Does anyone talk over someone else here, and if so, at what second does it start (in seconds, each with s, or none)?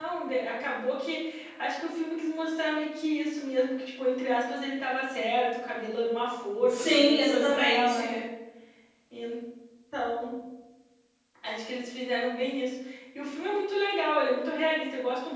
6.7 s